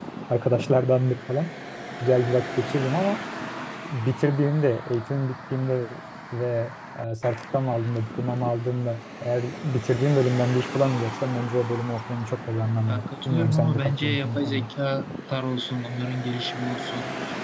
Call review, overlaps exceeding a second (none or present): present